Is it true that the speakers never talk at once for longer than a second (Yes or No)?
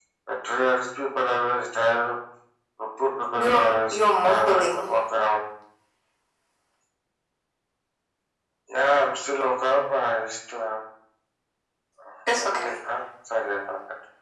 No